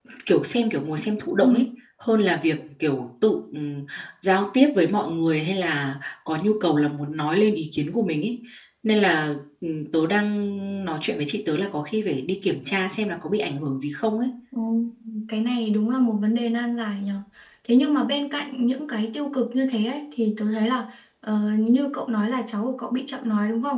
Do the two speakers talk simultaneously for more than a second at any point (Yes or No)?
No